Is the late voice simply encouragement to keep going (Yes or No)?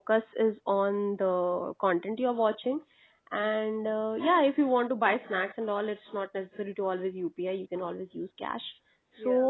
Yes